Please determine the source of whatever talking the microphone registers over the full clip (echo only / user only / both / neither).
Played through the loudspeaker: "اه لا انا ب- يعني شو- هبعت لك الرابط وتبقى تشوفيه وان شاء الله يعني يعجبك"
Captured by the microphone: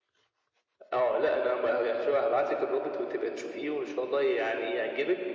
echo only